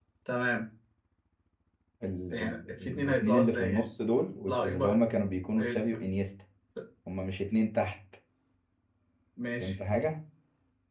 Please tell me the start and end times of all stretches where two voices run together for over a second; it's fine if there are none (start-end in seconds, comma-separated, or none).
2.3-3.9